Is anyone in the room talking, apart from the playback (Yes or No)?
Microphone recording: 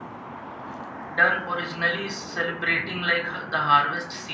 Yes